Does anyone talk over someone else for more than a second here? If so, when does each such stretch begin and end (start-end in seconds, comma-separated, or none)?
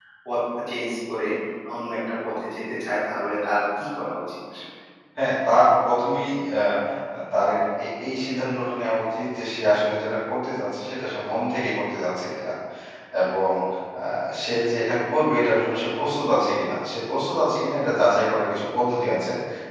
none